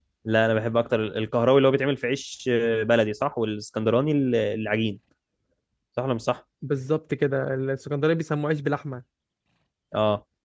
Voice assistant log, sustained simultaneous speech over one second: none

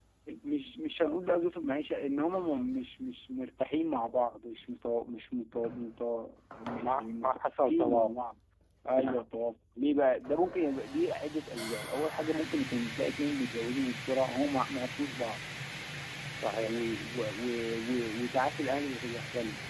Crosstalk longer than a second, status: present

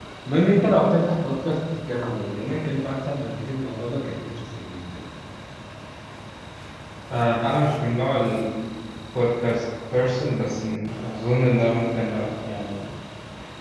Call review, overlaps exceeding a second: none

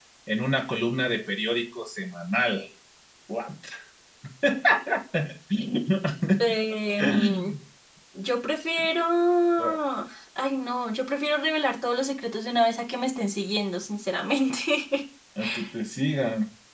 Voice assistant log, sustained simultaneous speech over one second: none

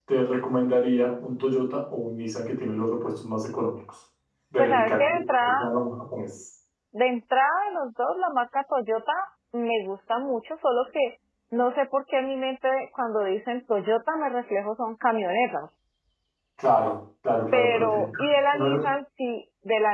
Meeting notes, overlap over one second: present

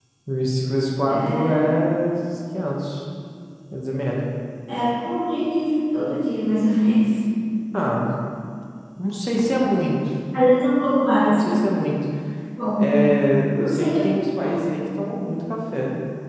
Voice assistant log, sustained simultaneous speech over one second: none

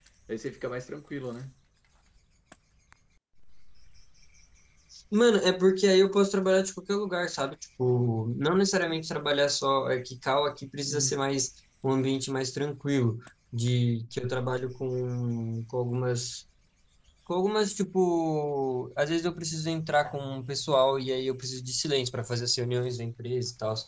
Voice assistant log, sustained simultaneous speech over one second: none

